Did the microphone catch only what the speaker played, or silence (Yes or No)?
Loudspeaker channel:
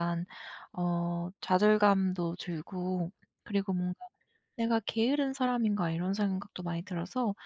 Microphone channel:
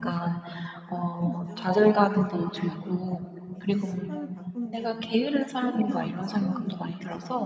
No